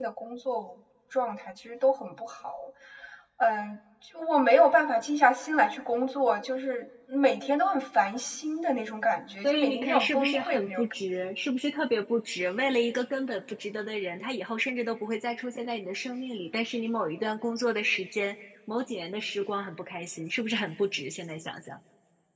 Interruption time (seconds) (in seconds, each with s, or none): 9.4 s